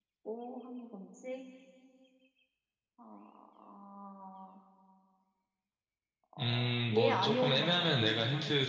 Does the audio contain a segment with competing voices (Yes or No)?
Yes